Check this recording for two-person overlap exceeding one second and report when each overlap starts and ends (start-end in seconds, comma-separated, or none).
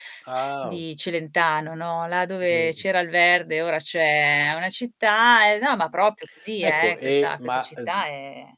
6.6-8.0